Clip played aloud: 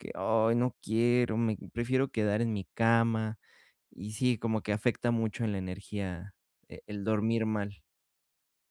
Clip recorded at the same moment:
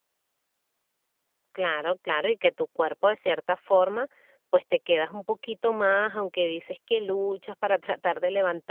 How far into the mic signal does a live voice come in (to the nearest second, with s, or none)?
2 s